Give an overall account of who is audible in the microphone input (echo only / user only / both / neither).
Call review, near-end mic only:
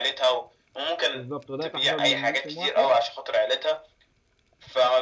both